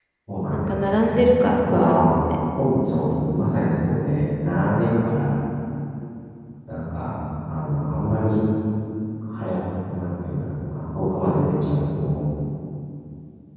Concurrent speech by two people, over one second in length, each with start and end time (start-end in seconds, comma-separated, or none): 0.5-2.2